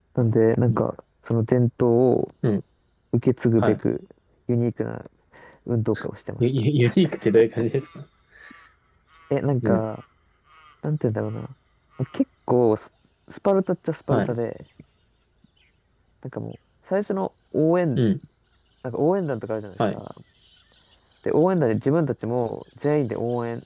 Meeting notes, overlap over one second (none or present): none